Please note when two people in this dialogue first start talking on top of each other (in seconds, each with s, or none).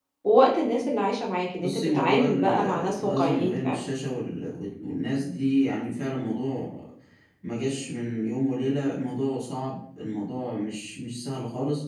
1.6 s